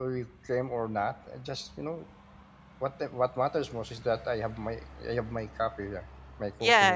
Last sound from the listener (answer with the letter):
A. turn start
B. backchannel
A